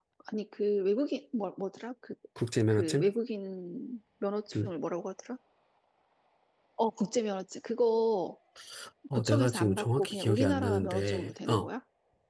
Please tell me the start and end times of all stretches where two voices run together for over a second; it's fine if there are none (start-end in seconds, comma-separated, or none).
9.1-11.7